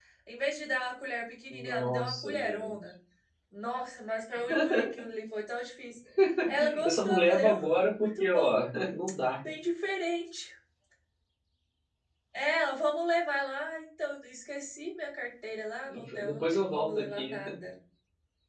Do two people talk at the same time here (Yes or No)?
Yes